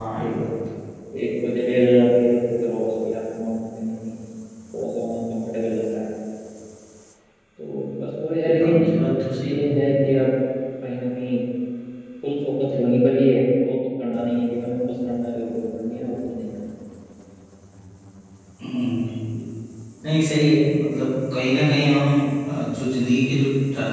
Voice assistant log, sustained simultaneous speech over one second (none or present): none